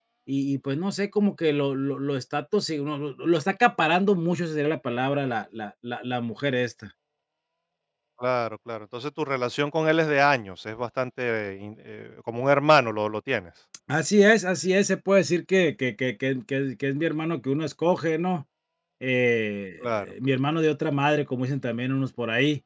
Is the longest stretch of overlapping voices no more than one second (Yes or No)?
Yes